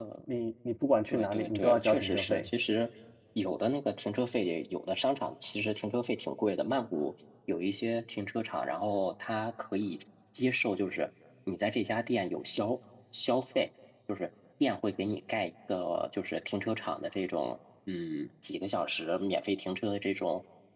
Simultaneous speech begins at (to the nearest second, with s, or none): 1 s